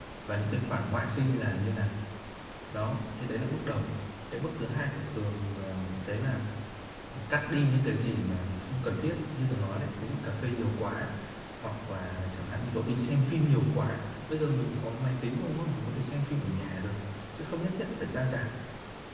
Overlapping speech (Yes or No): No